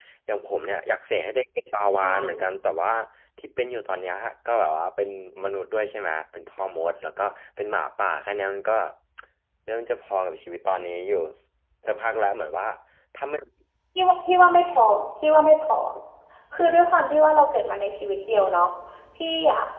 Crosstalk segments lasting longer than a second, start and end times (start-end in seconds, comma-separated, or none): none